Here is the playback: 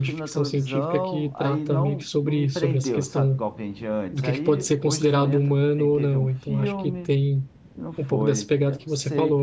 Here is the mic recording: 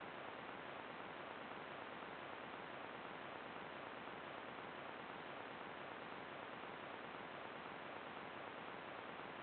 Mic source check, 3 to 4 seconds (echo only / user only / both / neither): neither